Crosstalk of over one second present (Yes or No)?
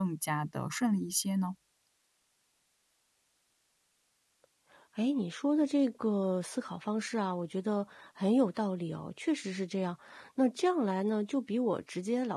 No